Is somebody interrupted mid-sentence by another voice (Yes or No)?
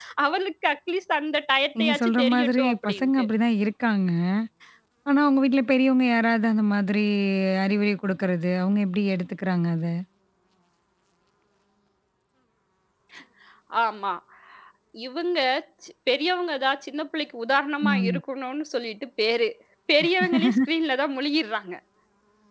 Yes